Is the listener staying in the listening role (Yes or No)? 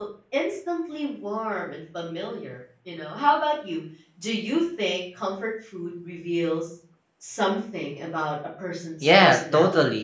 No